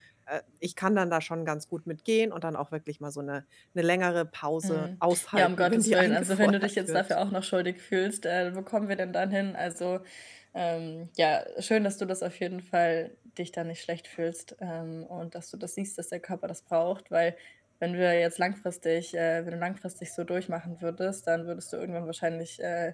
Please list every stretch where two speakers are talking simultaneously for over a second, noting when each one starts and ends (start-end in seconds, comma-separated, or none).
4.6-7.0